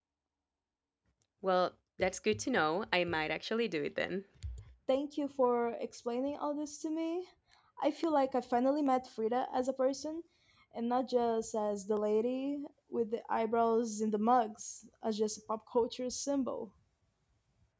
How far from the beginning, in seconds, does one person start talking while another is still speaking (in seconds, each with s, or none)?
none